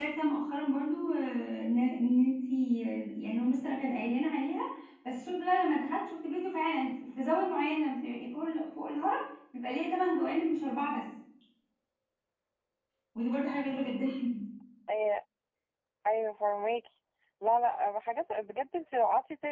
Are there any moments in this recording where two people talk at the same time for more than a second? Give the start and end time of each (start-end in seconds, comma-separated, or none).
none